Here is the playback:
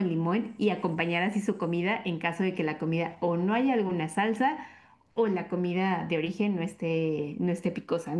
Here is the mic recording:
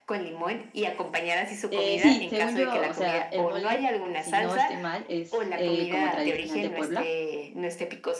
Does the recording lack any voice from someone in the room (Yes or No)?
No